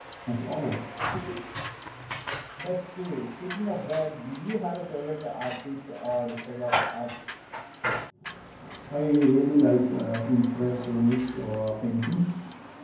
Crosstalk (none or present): none